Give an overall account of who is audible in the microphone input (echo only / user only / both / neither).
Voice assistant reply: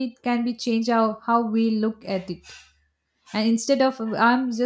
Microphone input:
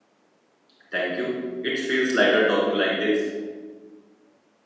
user only